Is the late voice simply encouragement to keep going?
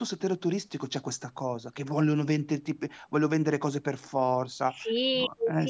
No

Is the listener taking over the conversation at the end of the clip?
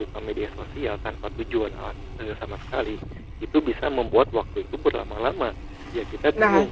Yes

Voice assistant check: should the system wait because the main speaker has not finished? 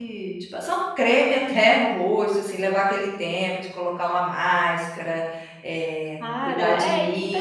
No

